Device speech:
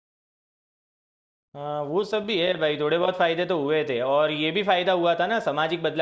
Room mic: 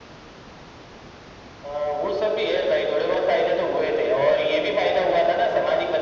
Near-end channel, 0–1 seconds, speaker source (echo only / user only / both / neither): neither